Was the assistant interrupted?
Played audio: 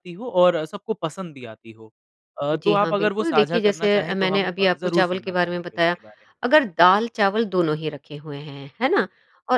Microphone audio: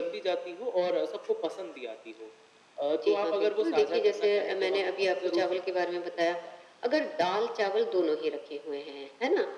No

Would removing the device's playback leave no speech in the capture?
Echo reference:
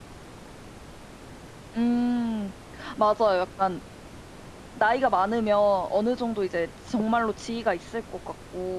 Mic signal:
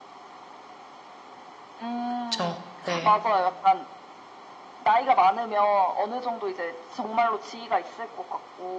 No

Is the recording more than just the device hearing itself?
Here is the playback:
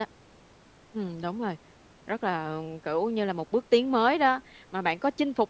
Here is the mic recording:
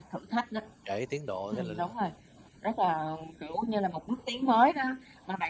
Yes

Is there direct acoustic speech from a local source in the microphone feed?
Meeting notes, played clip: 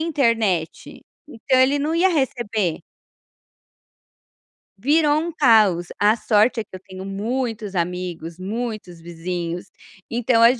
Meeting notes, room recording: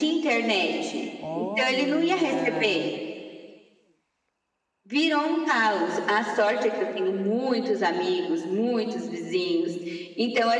Yes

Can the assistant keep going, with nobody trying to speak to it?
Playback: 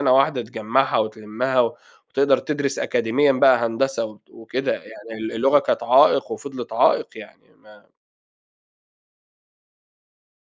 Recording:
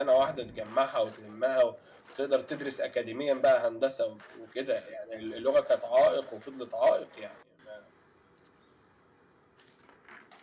Yes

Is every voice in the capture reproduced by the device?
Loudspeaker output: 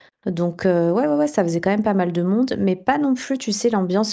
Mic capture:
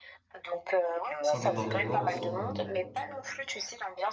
No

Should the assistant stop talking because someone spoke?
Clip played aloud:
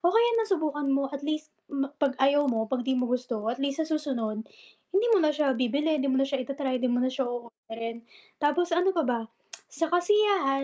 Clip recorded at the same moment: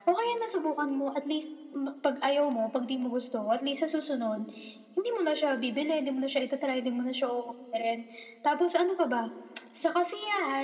No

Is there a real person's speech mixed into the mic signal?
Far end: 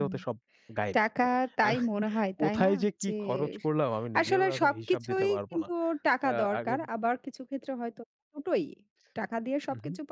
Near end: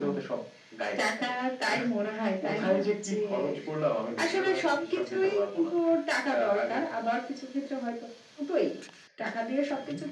No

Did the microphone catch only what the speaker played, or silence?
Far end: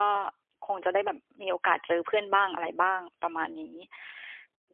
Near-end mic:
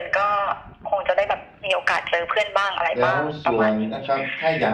No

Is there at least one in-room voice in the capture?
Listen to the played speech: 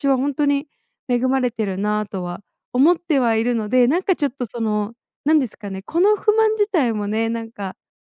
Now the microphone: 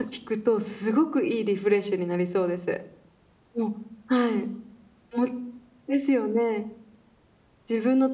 Yes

